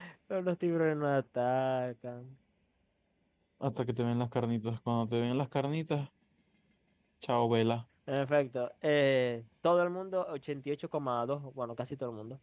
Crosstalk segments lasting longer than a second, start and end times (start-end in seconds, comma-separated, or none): none